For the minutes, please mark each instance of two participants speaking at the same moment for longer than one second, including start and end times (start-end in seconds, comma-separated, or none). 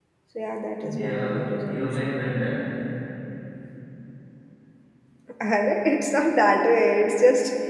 0.9-2.2